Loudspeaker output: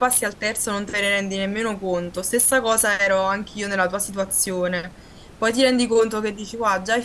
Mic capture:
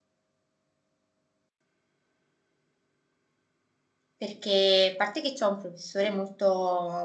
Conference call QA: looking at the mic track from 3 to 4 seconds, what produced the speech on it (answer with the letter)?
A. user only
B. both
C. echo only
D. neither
D